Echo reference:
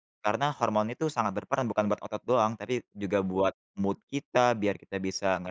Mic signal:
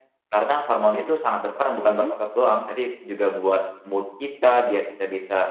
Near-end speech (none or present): present